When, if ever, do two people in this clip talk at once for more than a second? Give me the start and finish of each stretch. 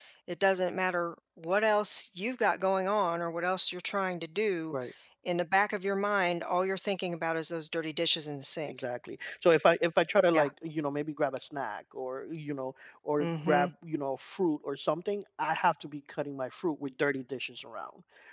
none

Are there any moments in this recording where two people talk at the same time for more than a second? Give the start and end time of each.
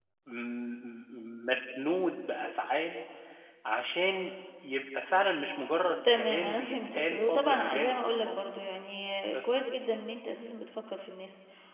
6.1-8.5

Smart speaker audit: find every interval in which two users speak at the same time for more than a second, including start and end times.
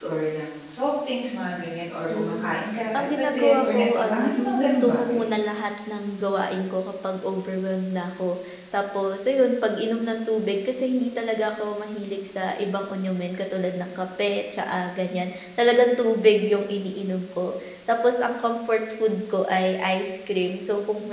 3.0-5.2

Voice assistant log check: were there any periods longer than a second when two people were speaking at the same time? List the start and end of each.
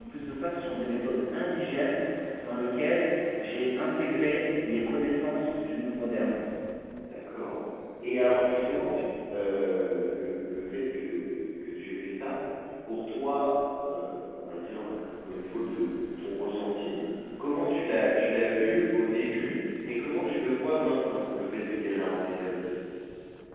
none

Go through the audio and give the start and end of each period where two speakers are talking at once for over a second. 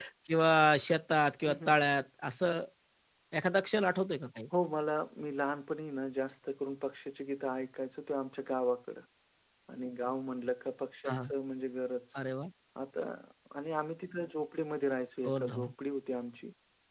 none

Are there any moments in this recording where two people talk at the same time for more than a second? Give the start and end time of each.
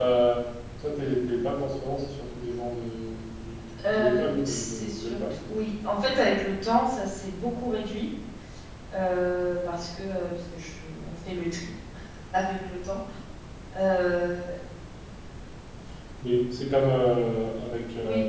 3.9-5.3

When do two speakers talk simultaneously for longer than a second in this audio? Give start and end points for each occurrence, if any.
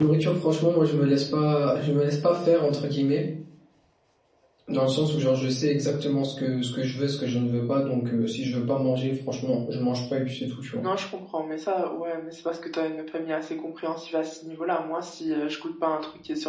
none

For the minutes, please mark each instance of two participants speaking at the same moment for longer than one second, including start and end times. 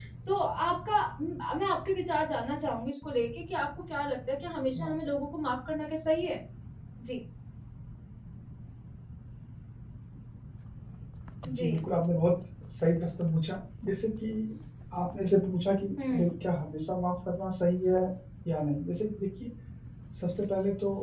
none

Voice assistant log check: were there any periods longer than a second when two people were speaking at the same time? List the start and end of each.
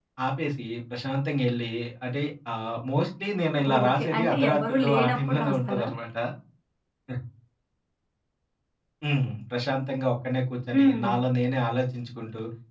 3.8-5.9

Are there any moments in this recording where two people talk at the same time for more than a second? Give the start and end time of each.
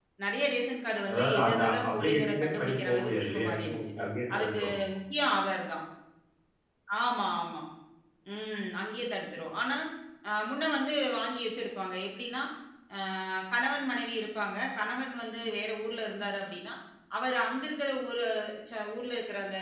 1.1-3.9

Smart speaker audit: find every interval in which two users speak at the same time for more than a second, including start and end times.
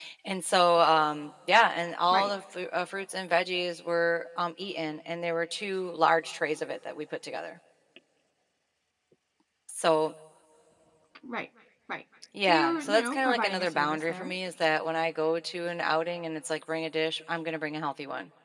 12.5-14.3

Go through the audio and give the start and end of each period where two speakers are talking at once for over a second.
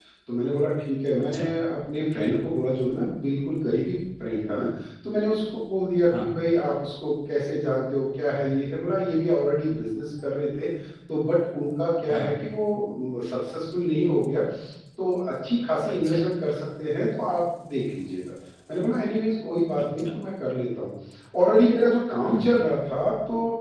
none

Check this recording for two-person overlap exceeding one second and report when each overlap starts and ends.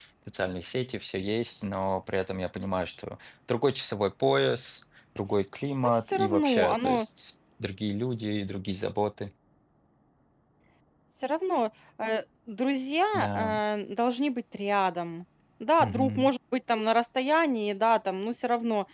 5.8-7.1

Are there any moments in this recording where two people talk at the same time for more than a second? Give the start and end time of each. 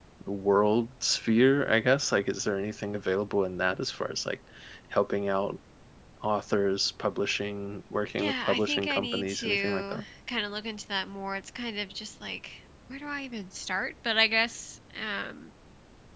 8.2-10.0

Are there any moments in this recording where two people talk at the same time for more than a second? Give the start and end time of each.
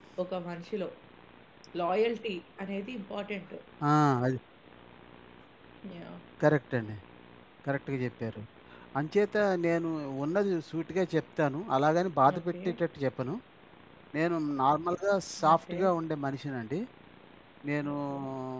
none

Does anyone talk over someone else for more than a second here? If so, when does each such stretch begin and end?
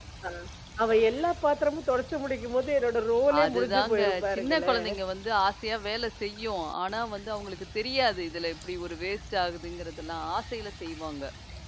3.4-4.9

